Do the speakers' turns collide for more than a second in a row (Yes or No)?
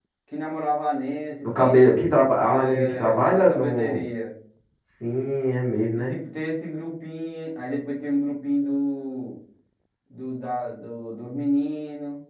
Yes